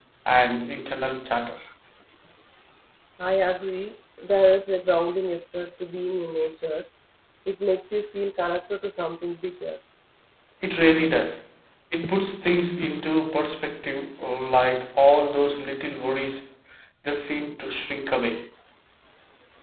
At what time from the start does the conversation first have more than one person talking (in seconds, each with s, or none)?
none